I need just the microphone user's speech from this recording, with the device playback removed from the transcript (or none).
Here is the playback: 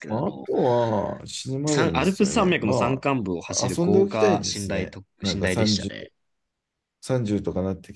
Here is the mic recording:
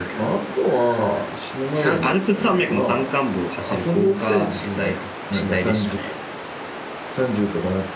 none